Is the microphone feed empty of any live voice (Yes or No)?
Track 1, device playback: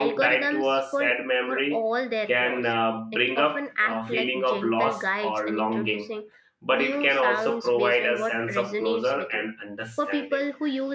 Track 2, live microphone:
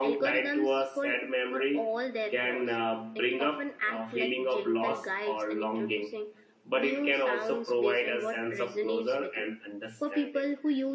Yes